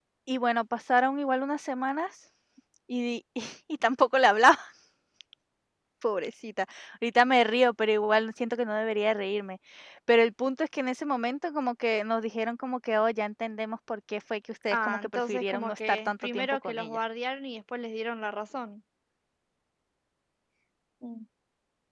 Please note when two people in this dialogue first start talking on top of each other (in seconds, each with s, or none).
14.7 s